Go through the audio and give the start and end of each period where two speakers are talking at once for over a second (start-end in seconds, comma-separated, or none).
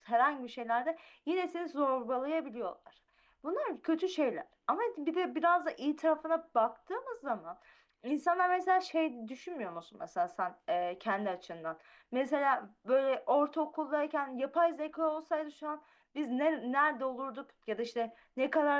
none